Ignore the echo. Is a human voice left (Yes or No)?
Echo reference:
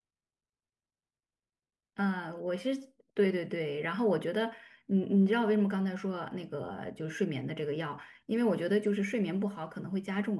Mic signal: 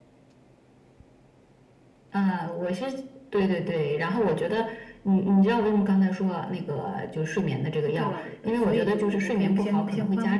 Yes